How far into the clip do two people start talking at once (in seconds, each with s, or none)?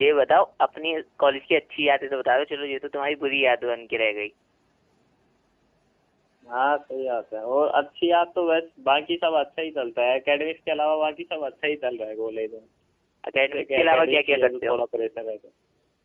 13.5 s